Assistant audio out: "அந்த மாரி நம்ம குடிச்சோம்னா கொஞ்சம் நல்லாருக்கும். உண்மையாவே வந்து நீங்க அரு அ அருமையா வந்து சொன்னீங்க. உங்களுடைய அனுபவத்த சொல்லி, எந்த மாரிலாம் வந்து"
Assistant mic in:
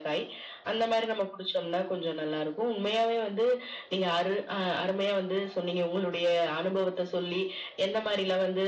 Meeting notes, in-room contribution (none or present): none